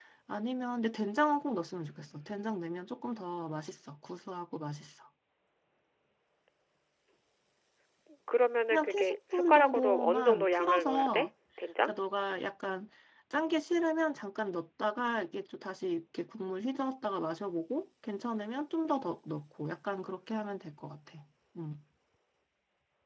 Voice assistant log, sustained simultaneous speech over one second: present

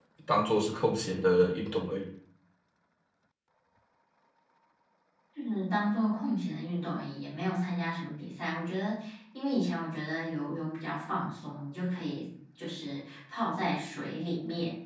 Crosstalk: none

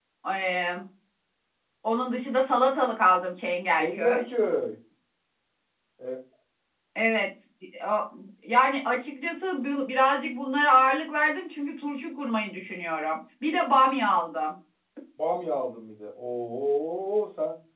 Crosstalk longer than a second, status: none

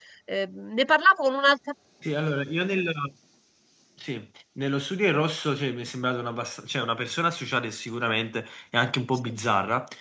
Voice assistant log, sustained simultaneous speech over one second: none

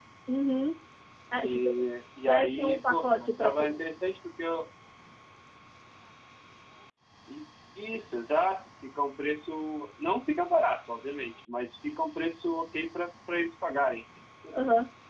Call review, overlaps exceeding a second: present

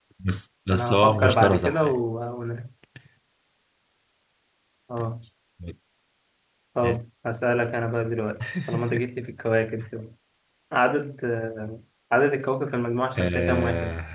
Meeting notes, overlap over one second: present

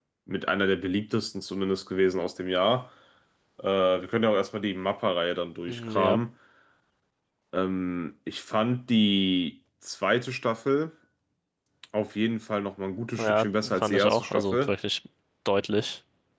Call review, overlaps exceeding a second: present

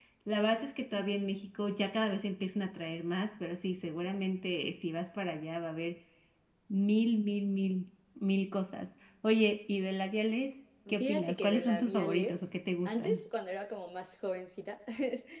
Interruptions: present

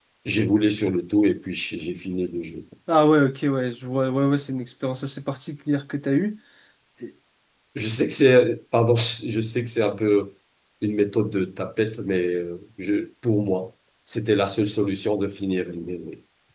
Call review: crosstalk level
none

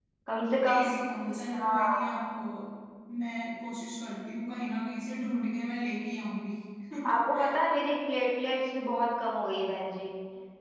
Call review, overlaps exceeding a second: none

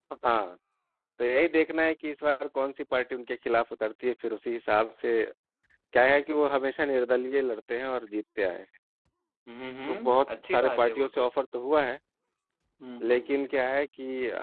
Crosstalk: present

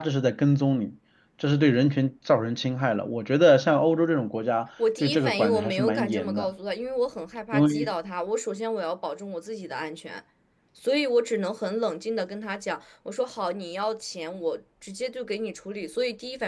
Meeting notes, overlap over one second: present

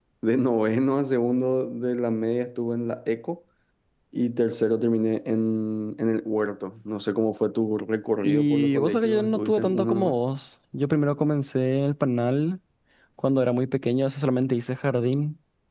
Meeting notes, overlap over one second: present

